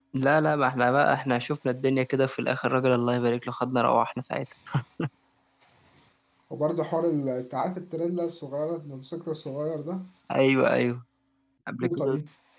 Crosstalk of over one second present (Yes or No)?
No